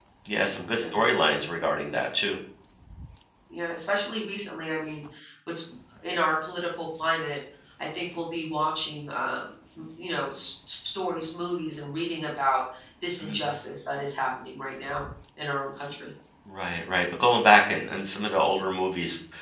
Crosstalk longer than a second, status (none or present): none